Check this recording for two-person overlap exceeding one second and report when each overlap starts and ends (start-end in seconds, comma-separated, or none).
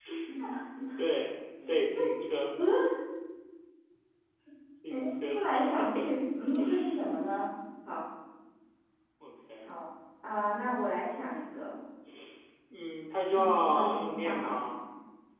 13.3-14.6